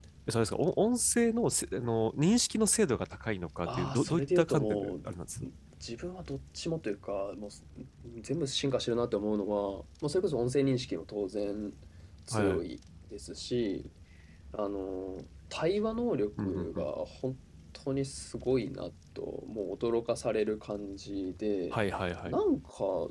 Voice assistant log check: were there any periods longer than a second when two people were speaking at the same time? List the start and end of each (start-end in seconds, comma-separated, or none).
3.7-4.9